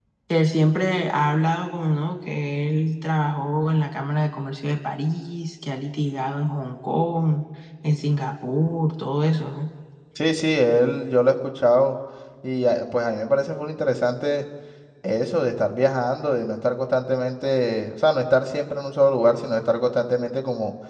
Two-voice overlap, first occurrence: none

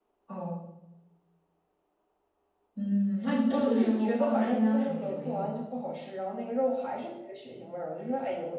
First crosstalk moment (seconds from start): 3.5 s

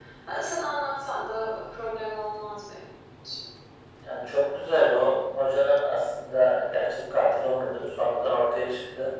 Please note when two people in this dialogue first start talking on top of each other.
none

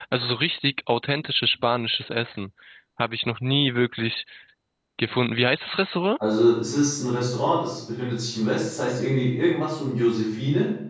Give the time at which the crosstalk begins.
none

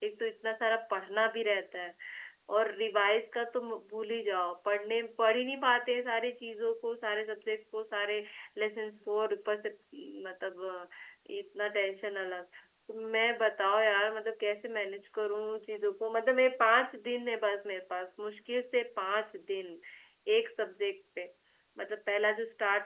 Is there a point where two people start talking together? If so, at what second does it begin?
none

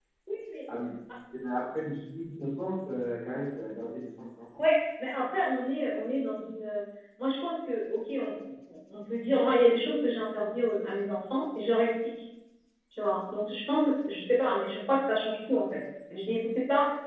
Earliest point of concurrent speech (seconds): none

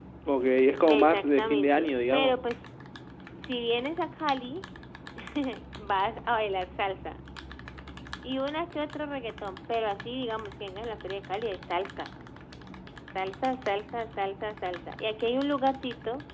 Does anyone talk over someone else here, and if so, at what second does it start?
0.9 s

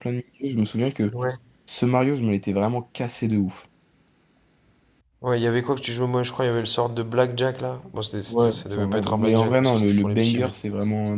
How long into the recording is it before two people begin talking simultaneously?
8.3 s

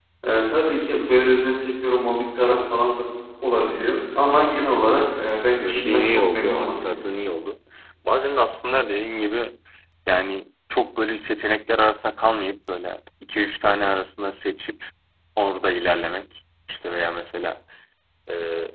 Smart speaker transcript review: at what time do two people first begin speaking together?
5.6 s

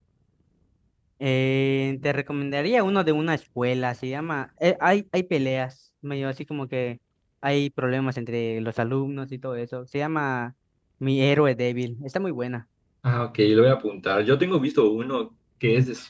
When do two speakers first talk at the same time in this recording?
none

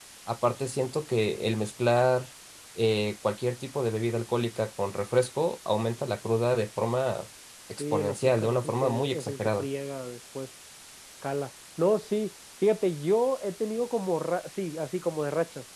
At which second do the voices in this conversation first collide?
7.8 s

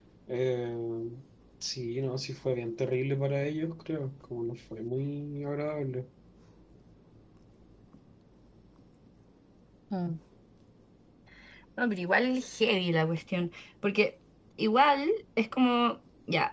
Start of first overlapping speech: none

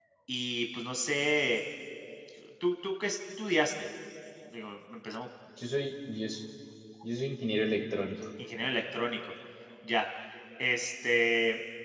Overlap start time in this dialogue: none

